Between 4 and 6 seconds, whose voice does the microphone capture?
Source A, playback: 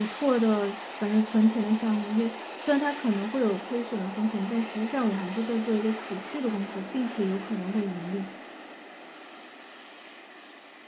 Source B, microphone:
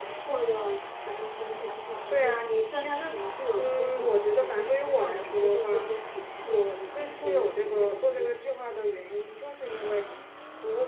both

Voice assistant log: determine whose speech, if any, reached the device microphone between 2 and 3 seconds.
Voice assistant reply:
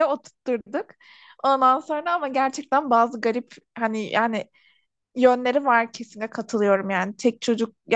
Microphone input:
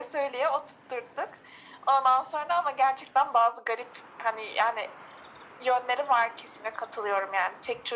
echo only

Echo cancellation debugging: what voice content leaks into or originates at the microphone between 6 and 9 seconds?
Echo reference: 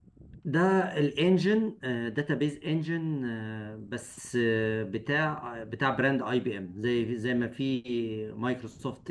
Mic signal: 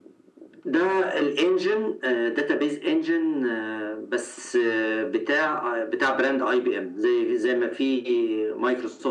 echo only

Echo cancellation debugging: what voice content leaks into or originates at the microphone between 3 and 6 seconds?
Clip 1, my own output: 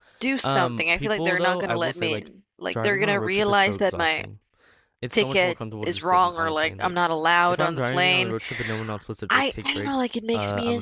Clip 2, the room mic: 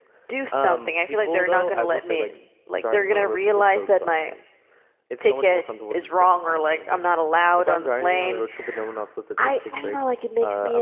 echo only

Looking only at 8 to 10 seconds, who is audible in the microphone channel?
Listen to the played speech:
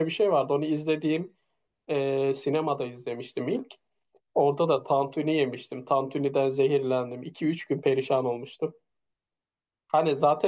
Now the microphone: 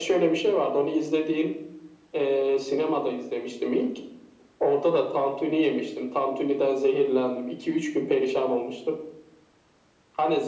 echo only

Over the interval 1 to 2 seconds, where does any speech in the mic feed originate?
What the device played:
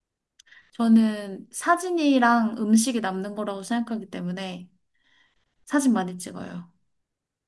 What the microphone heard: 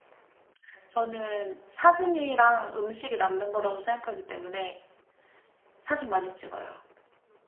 echo only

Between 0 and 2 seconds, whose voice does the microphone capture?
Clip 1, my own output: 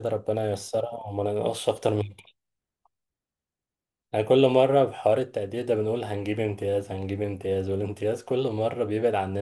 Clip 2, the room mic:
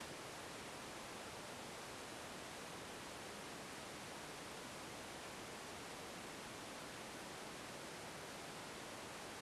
neither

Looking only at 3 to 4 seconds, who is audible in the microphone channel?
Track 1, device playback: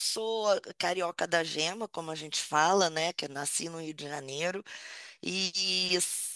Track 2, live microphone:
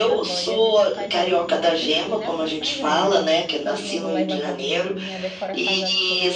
both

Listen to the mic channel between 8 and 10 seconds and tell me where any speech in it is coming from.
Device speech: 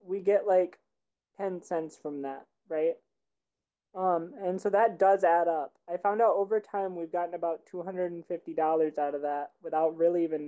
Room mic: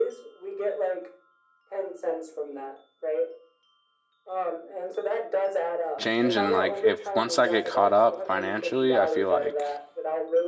both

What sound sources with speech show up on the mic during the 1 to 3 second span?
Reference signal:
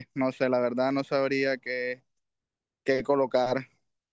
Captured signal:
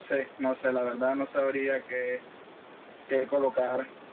echo only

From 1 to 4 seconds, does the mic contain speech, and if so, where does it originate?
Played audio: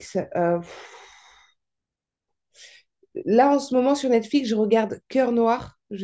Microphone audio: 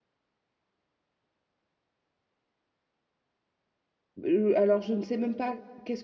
neither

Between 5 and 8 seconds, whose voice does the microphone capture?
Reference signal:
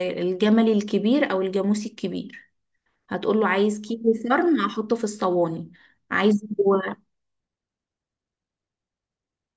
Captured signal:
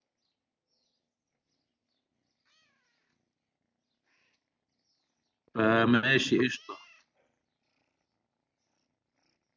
user only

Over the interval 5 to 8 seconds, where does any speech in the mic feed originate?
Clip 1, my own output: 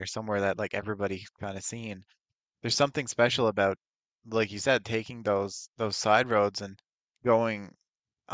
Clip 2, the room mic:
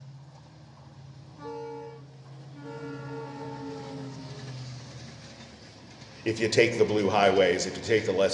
user only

